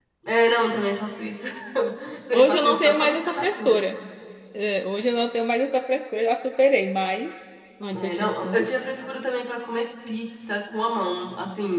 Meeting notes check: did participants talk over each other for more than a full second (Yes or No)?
Yes